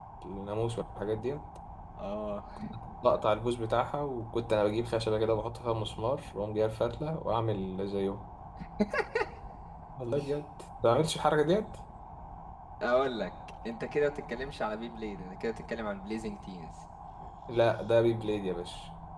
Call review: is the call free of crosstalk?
Yes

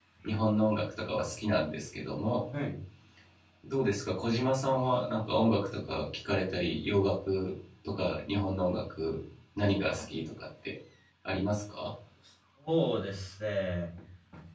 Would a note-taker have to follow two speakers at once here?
No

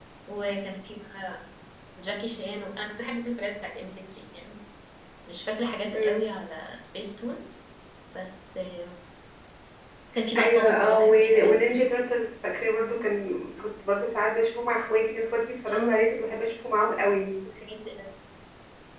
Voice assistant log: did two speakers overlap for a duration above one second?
Yes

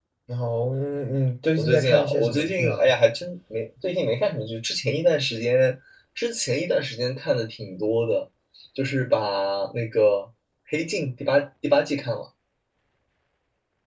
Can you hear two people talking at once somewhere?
Yes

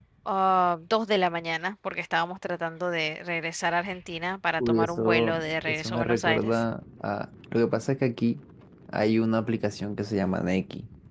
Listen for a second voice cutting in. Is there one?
Yes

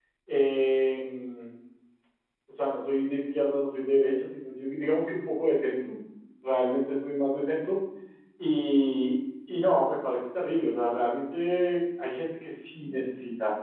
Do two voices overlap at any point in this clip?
No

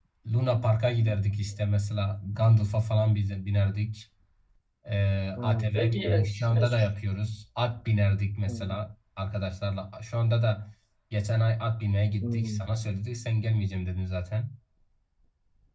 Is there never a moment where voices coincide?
No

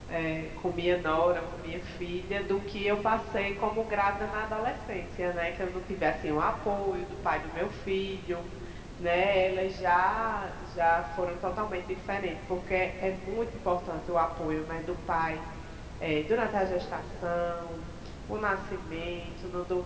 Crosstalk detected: No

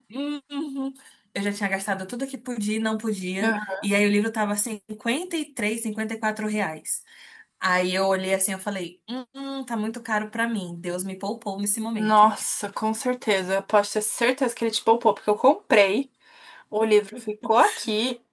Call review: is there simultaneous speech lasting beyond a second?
No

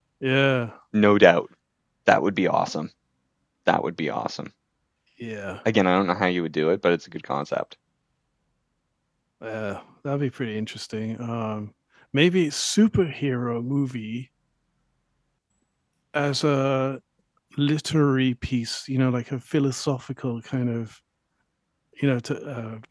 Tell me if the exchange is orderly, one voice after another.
Yes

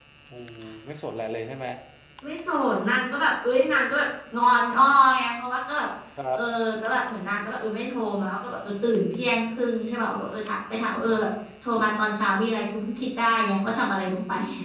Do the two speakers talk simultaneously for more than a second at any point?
No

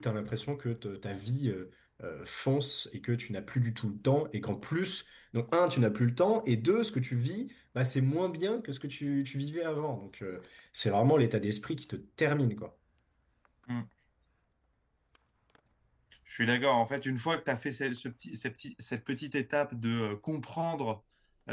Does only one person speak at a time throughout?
Yes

